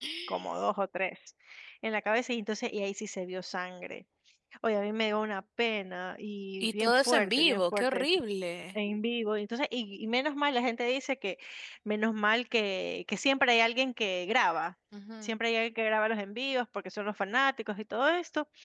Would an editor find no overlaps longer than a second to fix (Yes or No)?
No